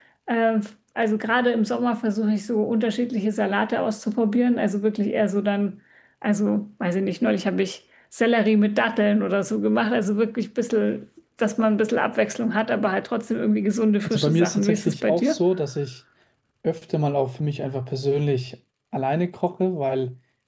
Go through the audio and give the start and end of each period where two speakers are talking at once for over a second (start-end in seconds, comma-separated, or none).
14.1-15.4